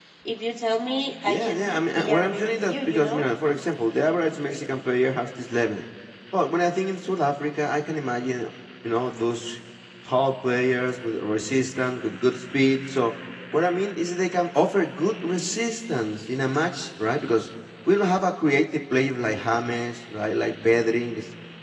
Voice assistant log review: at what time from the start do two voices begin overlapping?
1 s

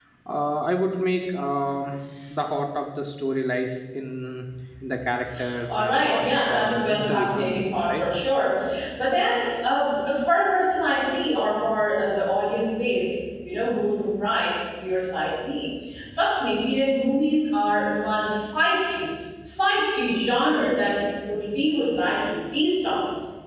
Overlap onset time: 6 s

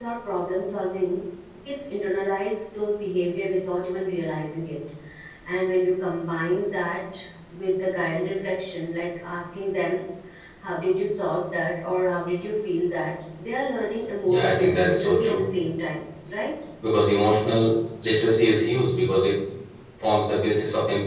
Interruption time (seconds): 14 s

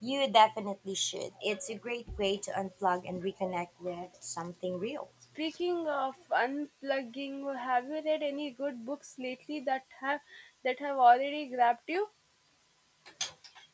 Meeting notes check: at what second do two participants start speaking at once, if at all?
none

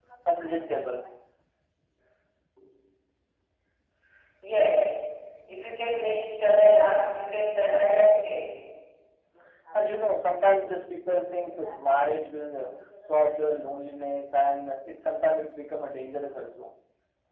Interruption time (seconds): none

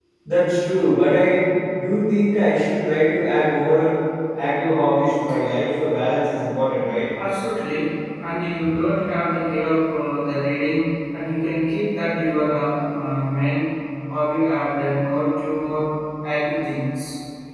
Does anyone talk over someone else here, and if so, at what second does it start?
none

